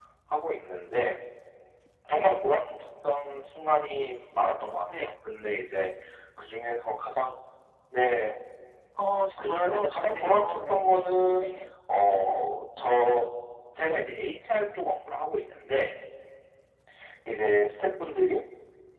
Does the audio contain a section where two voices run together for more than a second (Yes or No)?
Yes